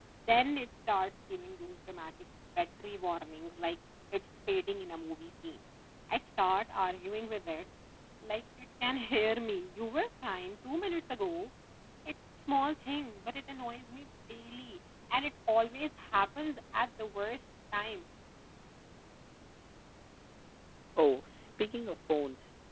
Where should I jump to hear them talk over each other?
none

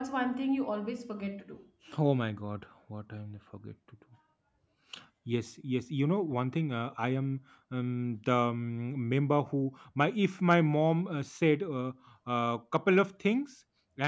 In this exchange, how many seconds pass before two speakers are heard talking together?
none

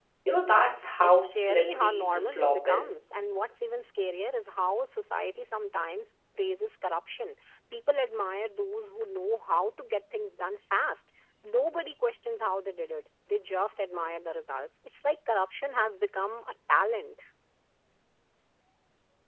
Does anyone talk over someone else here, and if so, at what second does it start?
1.0 s

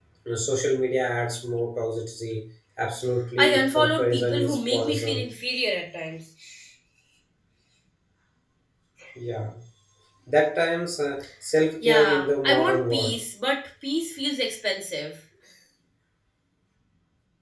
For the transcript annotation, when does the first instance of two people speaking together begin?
3.4 s

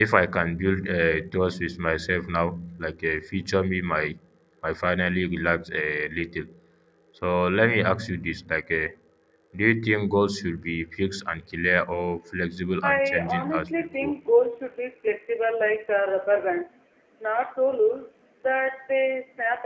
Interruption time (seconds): 12.8 s

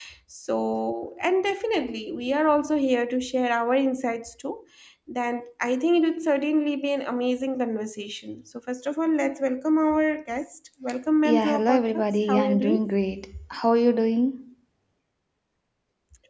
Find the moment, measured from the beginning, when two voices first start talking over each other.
11.2 s

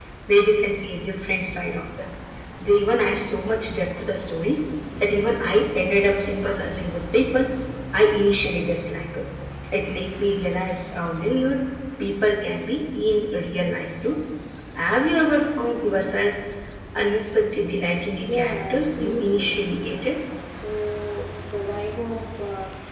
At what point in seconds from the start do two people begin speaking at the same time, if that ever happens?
18.2 s

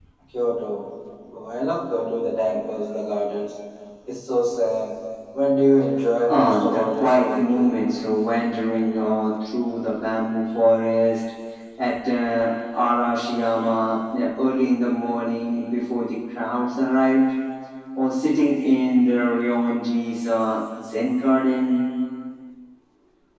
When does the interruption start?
6.3 s

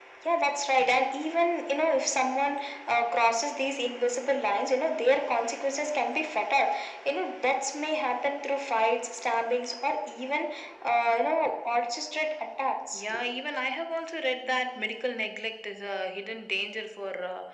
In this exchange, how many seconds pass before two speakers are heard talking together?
none

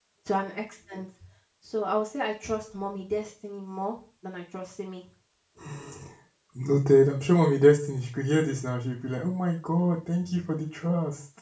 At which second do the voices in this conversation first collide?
none

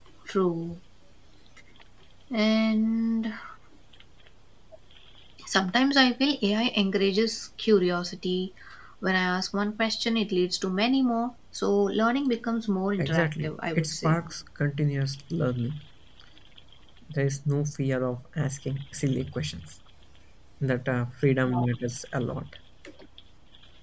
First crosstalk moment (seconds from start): 13.0 s

